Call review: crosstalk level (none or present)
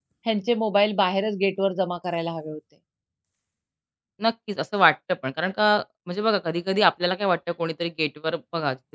none